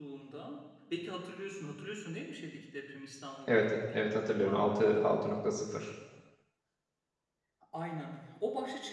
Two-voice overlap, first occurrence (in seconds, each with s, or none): 3.5 s